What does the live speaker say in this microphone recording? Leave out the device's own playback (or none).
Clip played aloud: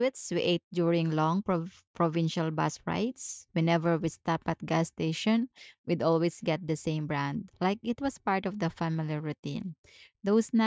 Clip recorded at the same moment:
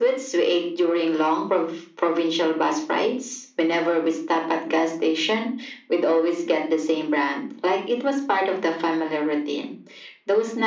none